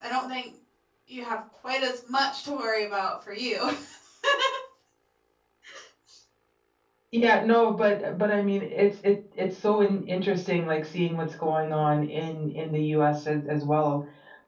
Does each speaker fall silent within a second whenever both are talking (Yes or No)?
Yes